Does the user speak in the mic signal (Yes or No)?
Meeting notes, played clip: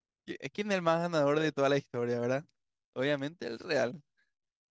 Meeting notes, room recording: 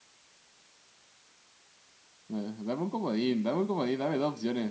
Yes